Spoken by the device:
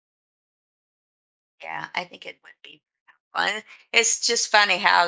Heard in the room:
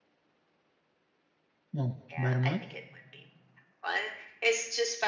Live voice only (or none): Oh, about a month?